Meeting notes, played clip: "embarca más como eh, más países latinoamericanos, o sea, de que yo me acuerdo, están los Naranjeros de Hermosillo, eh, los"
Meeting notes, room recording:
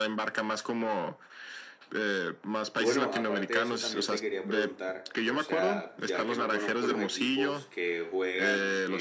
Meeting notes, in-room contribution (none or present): present